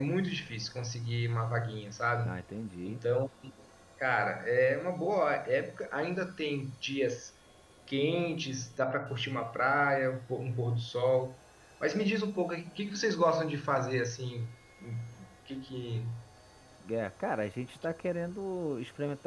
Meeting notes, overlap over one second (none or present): none